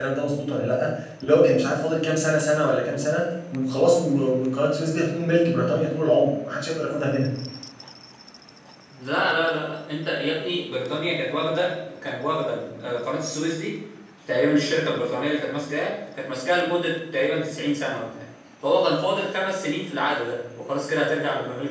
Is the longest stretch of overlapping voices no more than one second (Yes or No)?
Yes